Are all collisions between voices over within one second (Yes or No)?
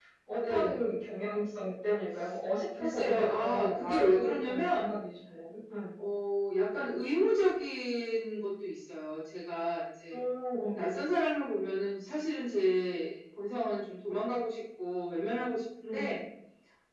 No